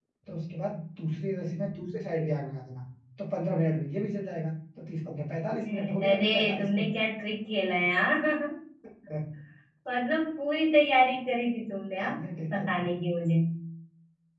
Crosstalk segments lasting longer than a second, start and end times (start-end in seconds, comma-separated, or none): 5.7-6.9